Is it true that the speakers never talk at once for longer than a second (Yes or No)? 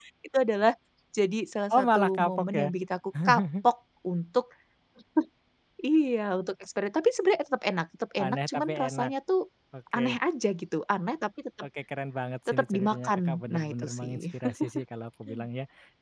No